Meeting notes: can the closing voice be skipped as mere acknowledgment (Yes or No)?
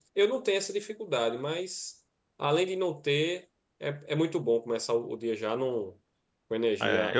No